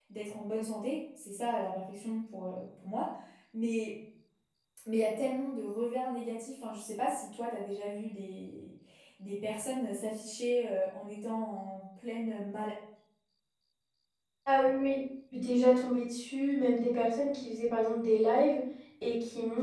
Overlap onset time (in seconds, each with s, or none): none